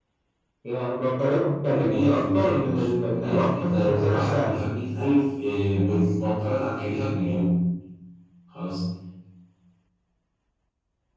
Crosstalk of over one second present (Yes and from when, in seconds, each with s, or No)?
Yes, from 1.6 s